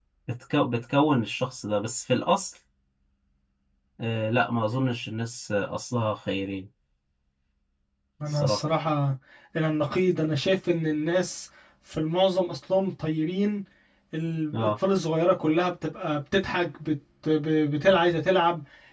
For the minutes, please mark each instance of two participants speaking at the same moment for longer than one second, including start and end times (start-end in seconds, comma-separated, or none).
none